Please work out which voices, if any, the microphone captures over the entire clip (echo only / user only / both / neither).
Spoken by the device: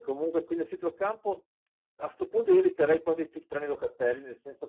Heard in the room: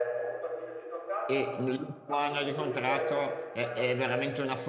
both